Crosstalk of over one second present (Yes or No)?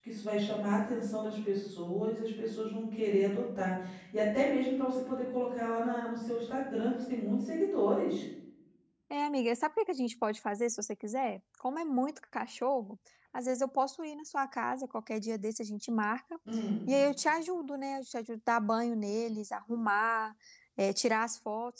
No